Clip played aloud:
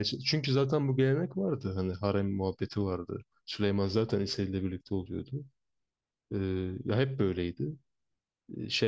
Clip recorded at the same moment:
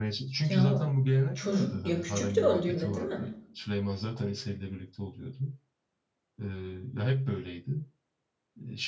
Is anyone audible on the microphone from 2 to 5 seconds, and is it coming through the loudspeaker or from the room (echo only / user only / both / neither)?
both